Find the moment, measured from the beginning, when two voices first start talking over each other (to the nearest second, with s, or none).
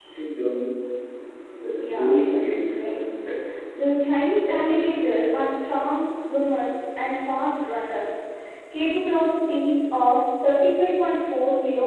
2 s